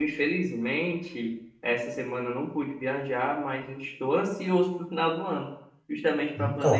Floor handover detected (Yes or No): No